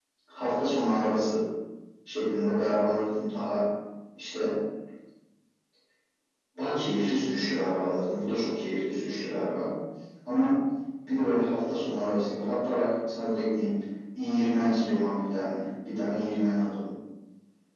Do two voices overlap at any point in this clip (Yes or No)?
No